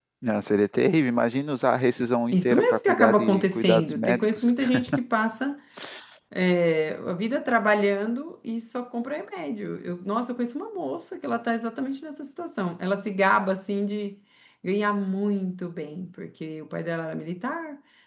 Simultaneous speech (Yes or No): Yes